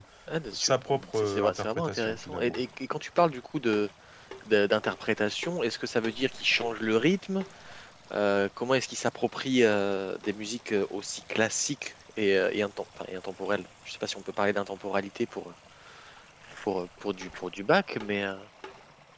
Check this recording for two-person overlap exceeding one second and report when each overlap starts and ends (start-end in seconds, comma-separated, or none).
1.1-2.6